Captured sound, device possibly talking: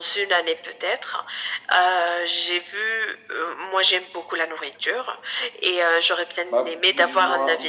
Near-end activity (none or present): present